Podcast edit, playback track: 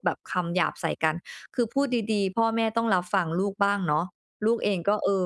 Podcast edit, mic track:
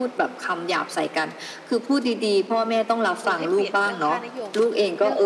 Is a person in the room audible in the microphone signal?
Yes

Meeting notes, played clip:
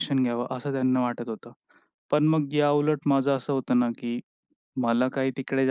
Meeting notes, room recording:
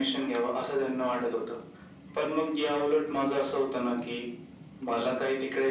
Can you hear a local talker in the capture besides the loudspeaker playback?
No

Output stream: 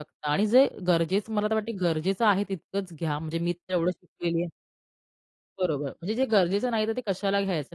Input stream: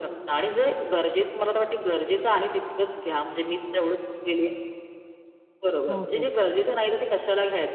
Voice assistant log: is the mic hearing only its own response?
No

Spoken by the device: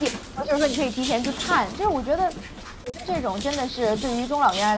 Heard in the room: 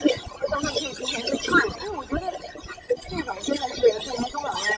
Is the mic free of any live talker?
Yes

